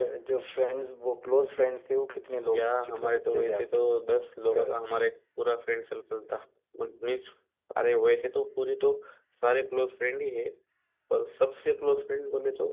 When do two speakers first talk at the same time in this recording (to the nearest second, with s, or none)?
3 s